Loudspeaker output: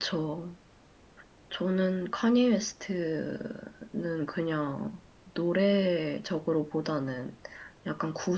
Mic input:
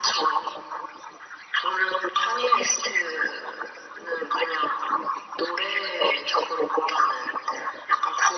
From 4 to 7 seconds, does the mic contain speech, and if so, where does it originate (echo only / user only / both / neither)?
echo only